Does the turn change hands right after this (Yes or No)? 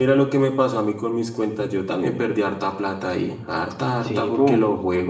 No